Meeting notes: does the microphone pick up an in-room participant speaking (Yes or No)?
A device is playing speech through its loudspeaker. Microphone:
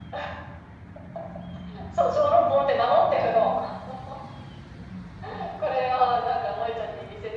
No